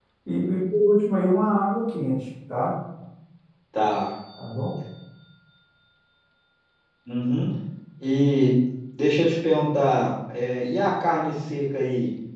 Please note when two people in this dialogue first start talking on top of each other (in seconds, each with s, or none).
none